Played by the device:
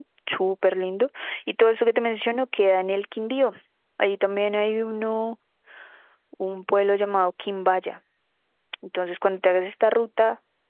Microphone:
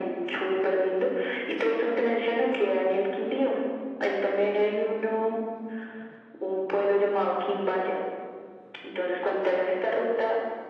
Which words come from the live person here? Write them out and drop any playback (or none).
none